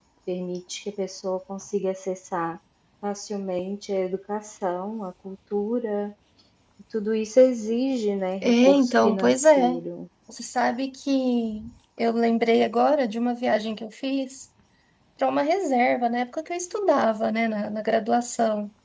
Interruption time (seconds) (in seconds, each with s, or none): 8.4 s